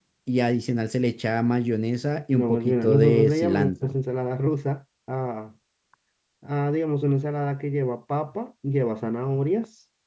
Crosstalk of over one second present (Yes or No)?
Yes